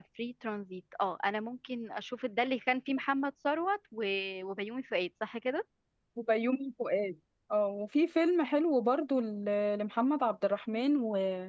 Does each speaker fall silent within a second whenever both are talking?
Yes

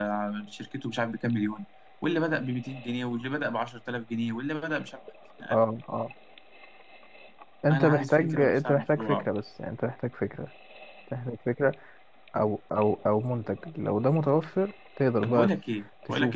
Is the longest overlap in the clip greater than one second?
Yes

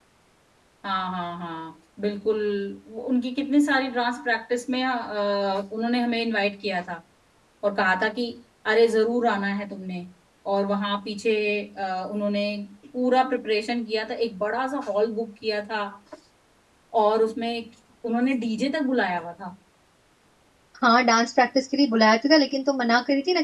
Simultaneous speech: No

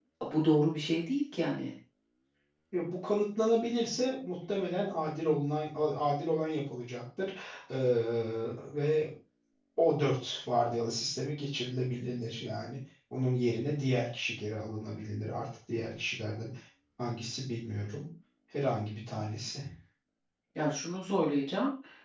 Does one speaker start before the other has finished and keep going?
No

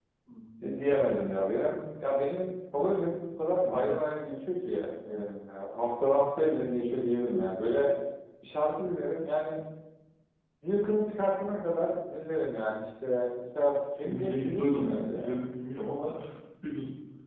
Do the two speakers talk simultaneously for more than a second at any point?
Yes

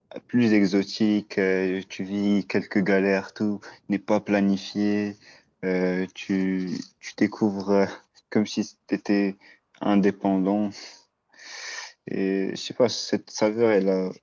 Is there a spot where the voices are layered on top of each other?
No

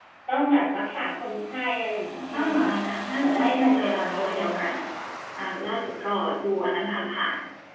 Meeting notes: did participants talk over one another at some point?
Yes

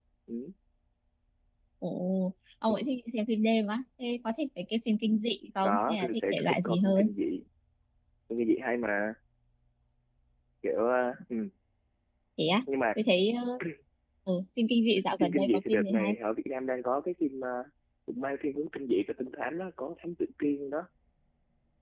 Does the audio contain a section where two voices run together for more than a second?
Yes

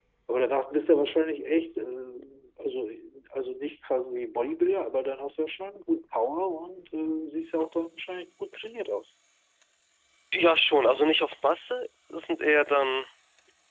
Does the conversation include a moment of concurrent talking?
No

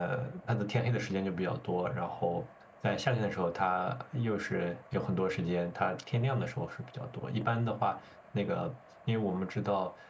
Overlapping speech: No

